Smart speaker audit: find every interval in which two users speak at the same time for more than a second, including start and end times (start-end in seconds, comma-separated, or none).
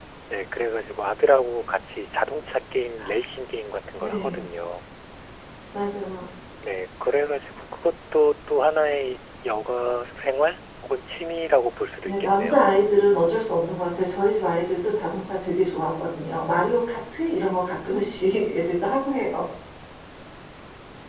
none